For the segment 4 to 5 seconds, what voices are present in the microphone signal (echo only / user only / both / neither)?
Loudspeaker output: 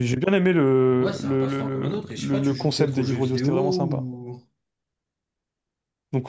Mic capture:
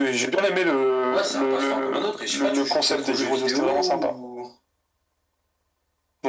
echo only